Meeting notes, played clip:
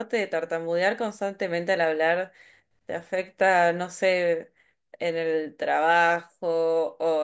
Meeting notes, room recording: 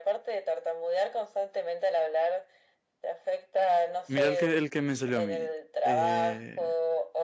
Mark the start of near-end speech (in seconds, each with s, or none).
4.1 s